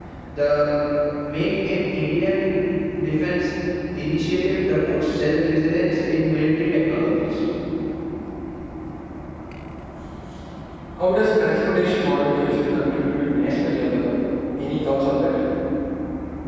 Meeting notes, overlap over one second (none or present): none